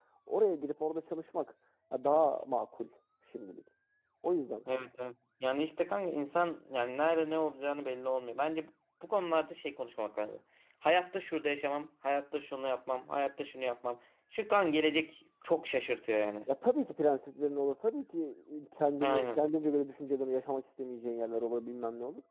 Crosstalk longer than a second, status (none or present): none